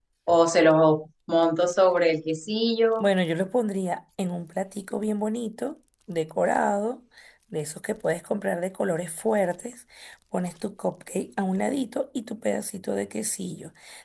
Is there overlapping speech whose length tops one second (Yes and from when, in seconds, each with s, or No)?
No